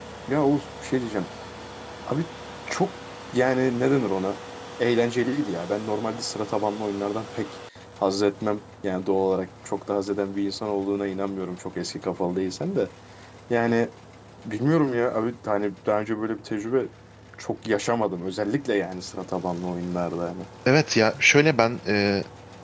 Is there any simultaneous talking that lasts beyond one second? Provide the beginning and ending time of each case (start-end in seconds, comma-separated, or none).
none